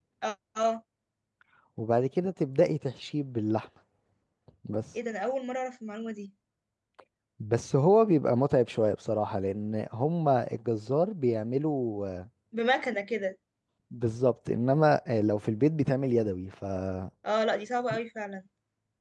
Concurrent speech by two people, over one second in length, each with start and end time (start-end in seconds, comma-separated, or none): none